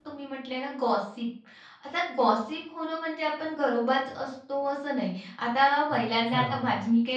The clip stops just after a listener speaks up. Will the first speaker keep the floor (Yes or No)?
Yes